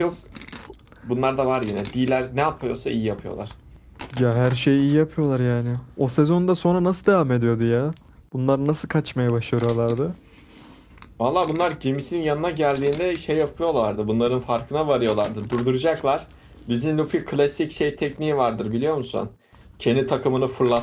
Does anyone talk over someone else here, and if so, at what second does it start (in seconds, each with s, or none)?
none